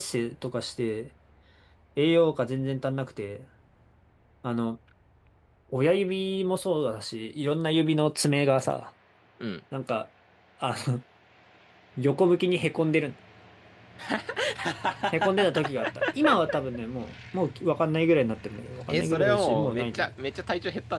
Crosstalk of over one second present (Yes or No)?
Yes